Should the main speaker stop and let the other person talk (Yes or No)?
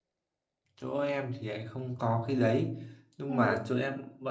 No